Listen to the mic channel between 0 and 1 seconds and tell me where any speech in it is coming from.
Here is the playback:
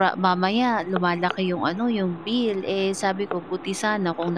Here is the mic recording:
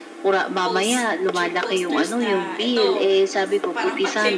both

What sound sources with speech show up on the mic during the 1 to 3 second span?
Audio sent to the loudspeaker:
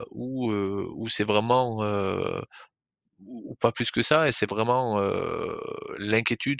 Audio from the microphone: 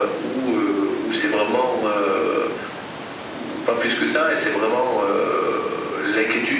echo only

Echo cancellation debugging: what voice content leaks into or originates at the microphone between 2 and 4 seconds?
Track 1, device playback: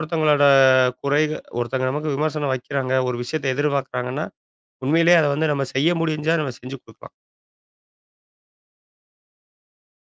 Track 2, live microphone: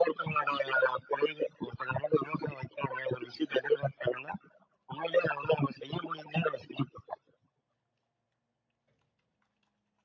echo only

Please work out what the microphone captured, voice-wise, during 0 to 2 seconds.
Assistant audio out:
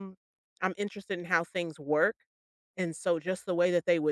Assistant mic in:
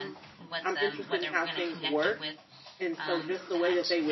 both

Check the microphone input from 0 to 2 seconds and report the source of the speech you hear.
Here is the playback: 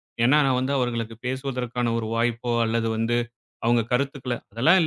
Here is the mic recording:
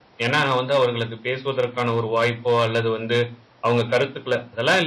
echo only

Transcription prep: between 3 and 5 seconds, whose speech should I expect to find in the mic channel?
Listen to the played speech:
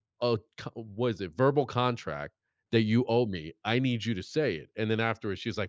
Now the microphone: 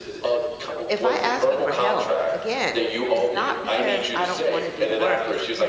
both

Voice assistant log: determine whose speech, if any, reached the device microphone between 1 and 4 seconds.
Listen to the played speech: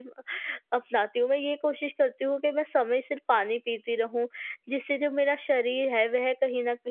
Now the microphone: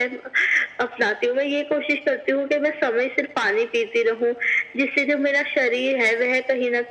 echo only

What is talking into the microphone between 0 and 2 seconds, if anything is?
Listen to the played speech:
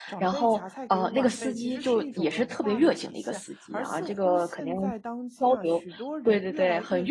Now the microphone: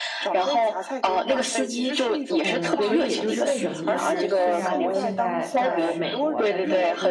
echo only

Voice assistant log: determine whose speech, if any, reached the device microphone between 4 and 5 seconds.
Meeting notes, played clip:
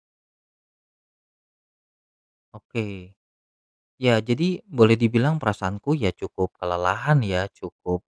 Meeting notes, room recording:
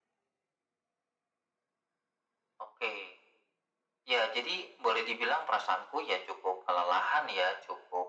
echo only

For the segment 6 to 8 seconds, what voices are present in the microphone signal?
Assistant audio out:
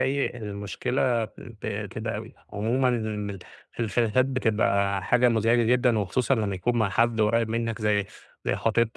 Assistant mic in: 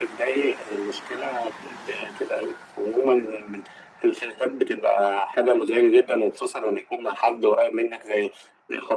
echo only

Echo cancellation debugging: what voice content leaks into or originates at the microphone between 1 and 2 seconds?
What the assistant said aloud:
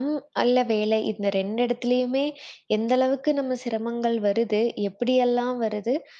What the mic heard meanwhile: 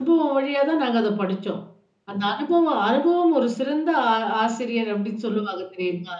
user only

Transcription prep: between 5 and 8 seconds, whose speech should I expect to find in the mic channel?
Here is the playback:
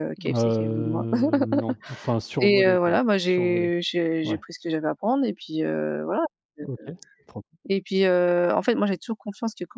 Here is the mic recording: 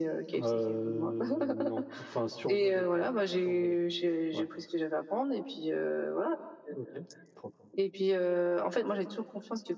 echo only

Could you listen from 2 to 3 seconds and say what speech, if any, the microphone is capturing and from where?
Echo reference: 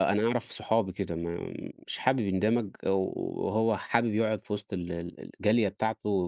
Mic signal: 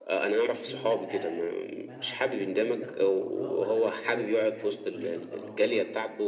both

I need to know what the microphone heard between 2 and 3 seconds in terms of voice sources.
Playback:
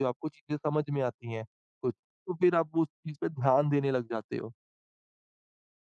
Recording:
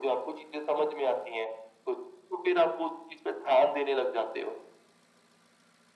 echo only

